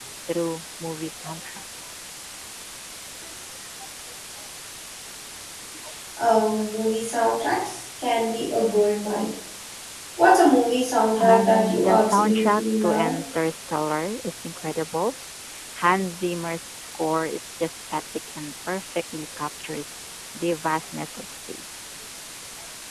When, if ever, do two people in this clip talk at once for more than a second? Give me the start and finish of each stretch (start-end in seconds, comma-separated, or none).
11.2-13.1